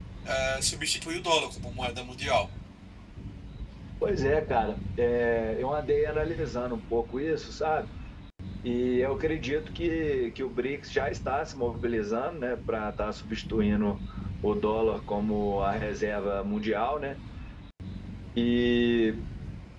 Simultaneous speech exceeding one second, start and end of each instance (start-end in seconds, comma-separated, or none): none